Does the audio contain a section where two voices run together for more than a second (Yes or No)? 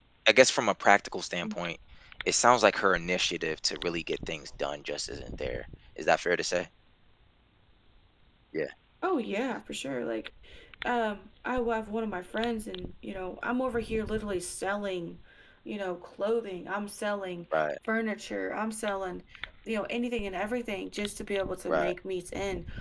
No